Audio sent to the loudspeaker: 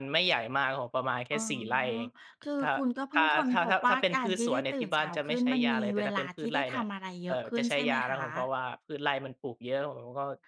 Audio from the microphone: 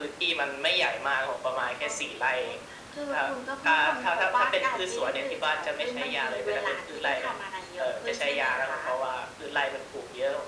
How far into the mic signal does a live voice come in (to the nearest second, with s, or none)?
none